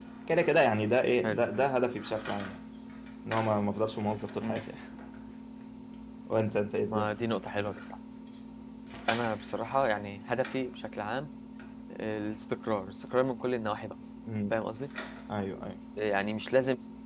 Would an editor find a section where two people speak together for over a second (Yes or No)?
No